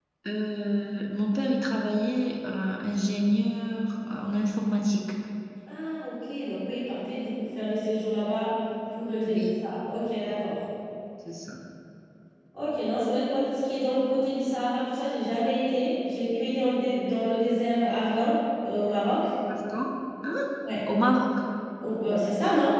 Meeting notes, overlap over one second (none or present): none